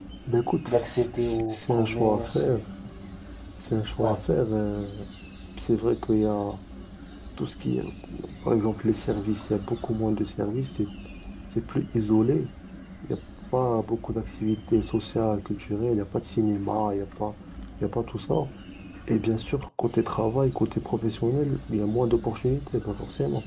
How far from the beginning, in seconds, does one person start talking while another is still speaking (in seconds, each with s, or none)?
0.7 s